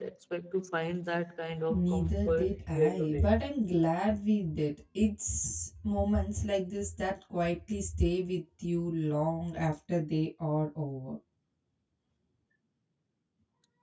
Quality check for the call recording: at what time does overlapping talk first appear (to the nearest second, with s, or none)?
2 s